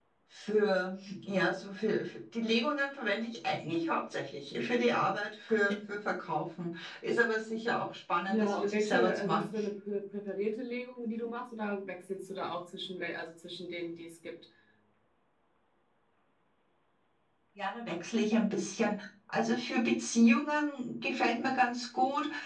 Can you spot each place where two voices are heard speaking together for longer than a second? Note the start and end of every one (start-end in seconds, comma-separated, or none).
8.3-9.6